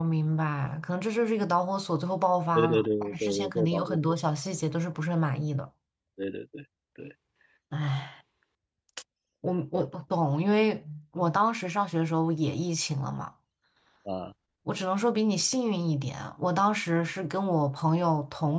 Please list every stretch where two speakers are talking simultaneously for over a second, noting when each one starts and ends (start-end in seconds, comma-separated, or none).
2.5-4.0